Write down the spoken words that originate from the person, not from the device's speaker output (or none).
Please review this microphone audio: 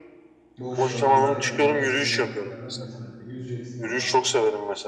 boş zamanda yapılacak en iyi aktivitelerden birisi bence. Yüzeceksin baba.